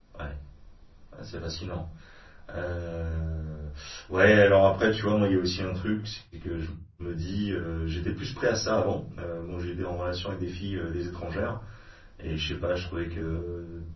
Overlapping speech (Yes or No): No